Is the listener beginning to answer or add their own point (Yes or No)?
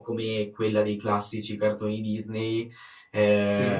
No